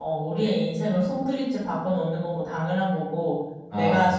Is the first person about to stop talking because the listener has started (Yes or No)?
No